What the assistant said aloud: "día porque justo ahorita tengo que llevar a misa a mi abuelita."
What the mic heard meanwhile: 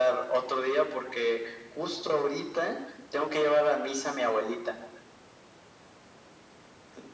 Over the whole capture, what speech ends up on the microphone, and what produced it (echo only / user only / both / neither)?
echo only